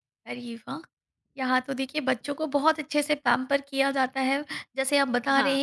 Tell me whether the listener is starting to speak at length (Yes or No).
No